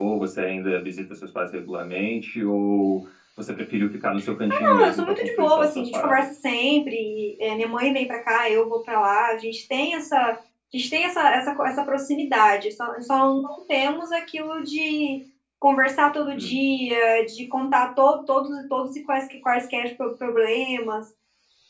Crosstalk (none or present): present